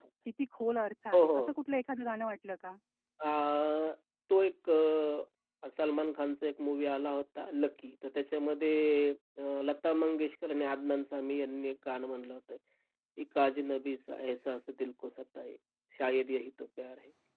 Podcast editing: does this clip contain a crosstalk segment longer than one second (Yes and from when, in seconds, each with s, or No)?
No